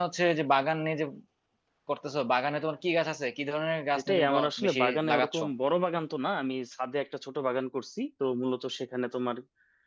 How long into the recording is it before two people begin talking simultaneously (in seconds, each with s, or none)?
4.0 s